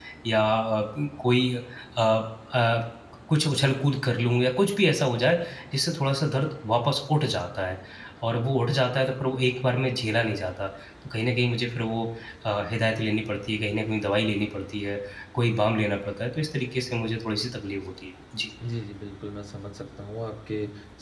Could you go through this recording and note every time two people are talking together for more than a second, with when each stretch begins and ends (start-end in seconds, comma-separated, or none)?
none